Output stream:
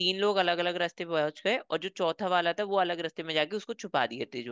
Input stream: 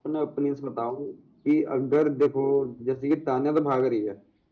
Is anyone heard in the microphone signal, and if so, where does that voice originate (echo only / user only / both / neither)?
user only